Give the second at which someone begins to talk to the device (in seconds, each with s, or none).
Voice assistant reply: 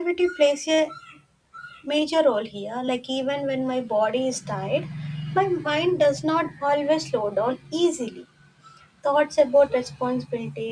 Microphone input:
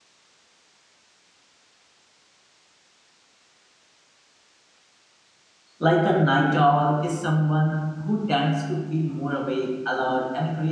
5.8 s